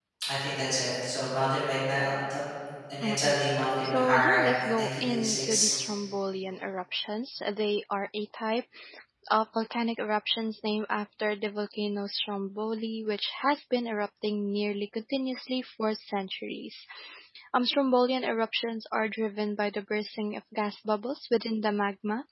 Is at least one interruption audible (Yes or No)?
Yes